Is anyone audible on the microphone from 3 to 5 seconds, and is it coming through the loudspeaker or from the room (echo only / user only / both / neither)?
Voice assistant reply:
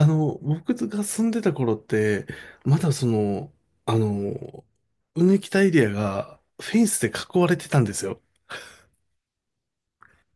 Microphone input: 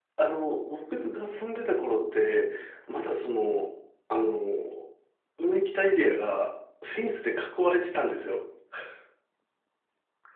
echo only